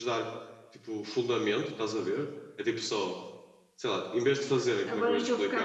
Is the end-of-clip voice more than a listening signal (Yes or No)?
Yes